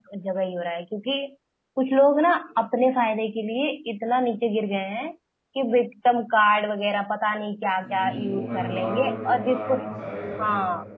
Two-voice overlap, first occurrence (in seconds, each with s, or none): 7.8 s